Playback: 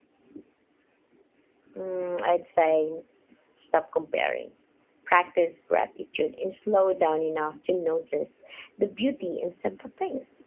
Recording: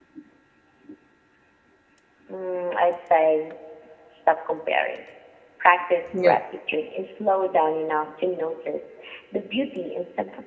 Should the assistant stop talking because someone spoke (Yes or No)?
Yes